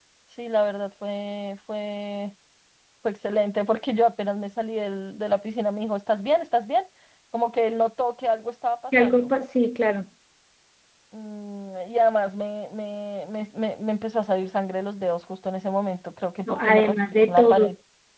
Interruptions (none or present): present